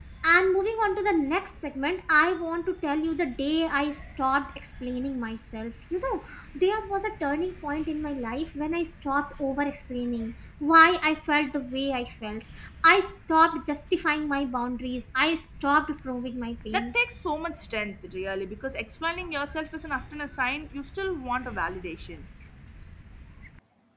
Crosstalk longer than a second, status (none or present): none